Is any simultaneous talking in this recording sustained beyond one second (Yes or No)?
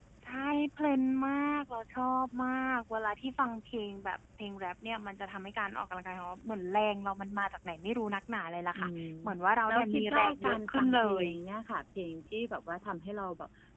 Yes